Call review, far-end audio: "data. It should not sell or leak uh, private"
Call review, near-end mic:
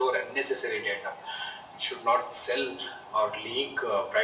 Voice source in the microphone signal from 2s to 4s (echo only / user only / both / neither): echo only